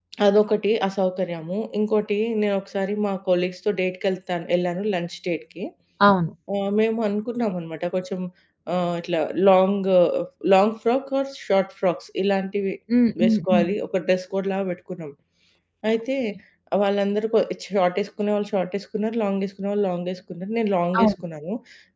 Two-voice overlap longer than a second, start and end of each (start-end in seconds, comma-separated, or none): none